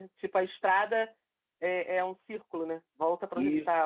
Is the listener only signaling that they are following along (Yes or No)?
No